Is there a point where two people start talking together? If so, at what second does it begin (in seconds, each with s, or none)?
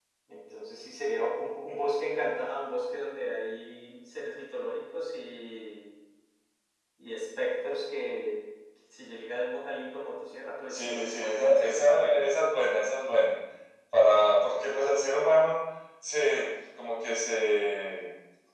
10.7 s